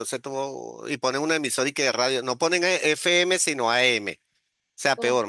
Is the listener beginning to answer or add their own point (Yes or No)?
No